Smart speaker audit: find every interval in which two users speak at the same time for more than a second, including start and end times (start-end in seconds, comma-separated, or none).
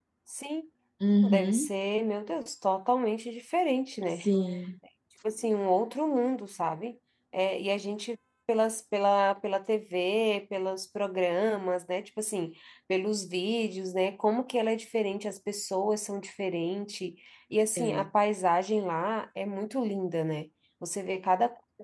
none